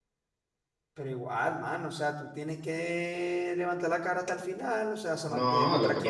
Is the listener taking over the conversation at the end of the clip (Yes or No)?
Yes